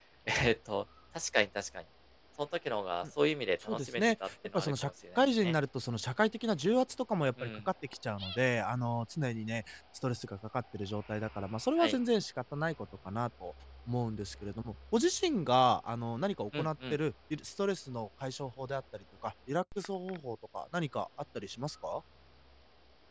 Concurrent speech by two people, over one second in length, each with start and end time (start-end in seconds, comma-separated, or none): 3.7-5.5